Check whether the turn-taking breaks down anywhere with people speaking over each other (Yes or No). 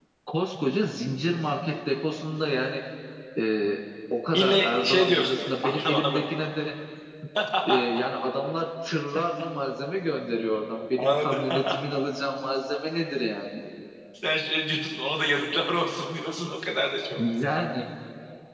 Yes